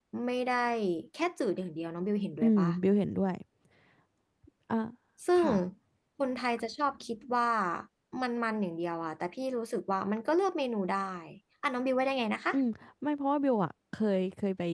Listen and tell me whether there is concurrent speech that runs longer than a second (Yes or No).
No